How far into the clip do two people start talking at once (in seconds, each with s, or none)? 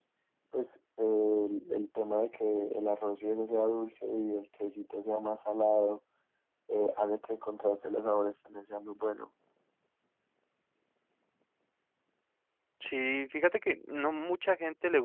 none